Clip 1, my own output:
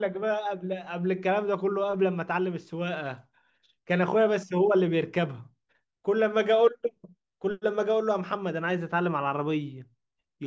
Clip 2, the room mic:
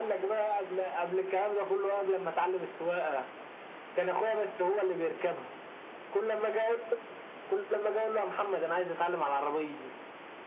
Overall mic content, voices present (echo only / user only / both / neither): echo only